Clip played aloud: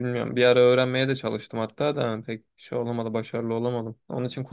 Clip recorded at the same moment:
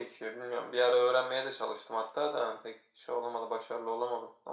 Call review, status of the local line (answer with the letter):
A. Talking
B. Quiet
B